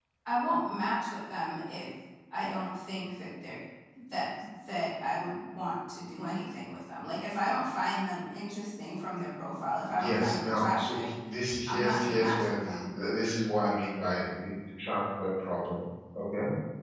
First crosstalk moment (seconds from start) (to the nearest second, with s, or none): 10 s